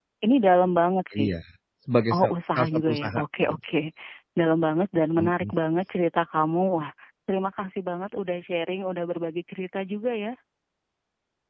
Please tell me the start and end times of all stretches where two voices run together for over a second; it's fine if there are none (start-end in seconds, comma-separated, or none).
2.1-3.6